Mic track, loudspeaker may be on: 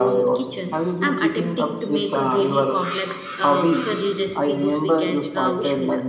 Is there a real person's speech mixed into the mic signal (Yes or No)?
No